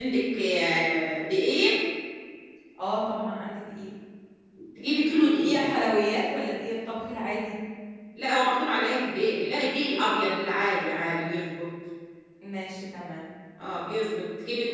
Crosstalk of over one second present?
No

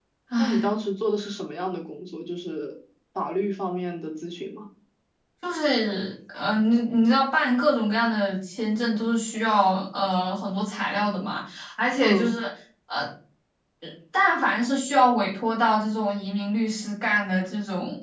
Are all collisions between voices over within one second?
Yes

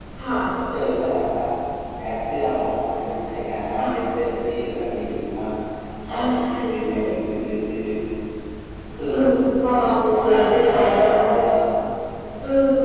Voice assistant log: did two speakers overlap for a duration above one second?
Yes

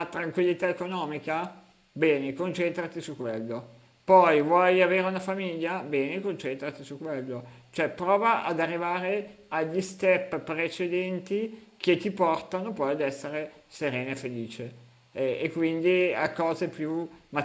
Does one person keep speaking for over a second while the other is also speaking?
No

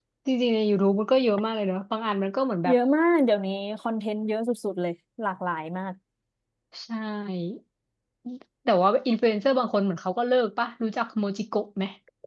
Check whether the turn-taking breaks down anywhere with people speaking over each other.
No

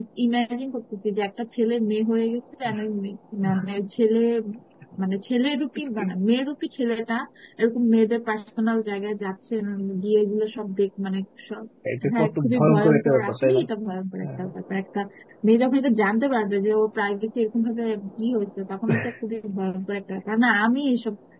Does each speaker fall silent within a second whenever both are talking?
No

